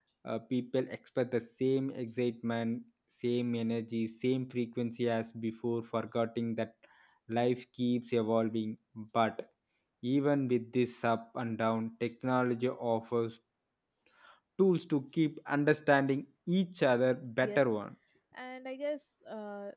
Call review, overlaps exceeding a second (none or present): none